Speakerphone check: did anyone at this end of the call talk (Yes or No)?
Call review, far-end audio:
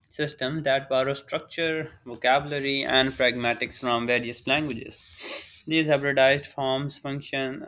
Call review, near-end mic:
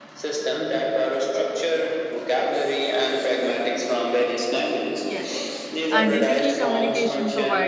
Yes